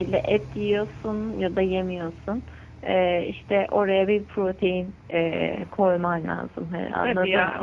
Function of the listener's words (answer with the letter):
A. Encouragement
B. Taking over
B